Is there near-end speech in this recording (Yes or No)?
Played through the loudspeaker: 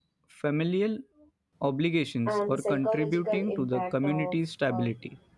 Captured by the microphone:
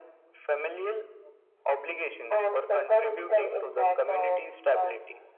No